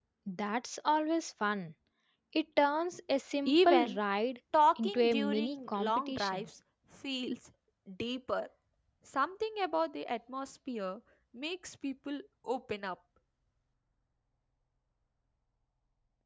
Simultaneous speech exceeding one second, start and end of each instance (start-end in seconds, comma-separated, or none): 4.8-6.5